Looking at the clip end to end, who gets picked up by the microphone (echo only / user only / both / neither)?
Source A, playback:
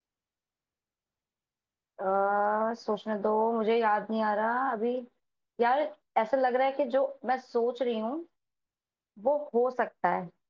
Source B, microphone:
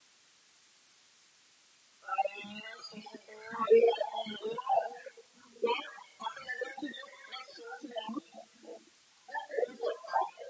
echo only